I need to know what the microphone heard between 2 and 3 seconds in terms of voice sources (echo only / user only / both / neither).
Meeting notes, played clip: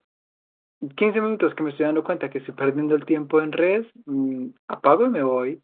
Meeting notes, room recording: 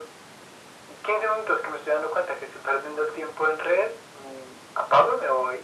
echo only